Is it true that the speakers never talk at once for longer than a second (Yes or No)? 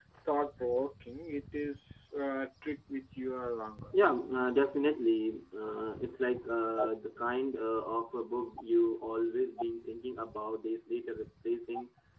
Yes